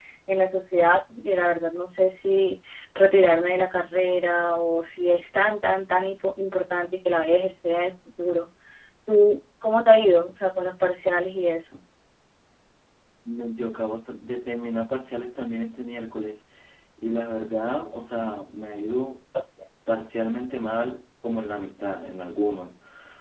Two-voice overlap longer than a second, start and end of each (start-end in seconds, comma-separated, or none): none